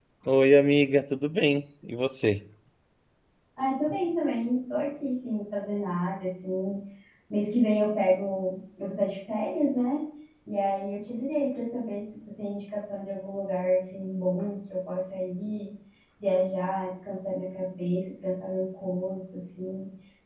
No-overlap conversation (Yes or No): Yes